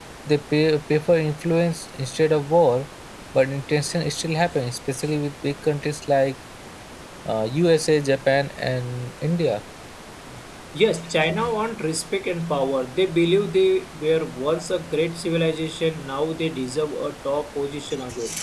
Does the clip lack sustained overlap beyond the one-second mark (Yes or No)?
Yes